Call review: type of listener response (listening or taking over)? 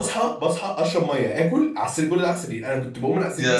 listening